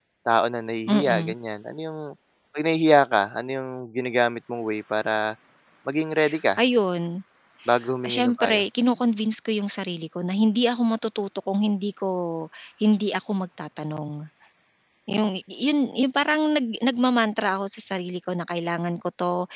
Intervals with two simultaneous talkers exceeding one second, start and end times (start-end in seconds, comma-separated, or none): none